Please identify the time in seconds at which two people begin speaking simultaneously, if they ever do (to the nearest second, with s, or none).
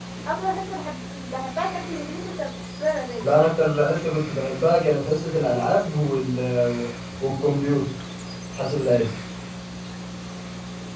none